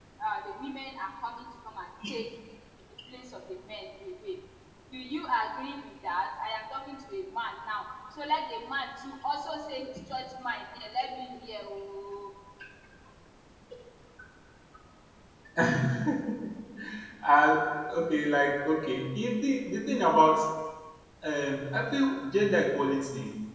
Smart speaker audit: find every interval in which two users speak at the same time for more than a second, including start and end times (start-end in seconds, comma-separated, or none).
none